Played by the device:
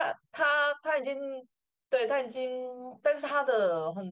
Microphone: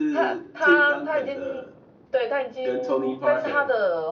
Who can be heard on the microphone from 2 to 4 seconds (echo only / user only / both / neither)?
both